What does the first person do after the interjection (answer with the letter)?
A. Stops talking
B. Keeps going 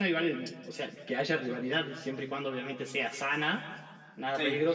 B